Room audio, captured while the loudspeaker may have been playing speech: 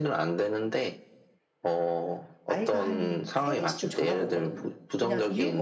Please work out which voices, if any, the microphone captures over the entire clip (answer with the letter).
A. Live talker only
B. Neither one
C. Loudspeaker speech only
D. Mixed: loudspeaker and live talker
D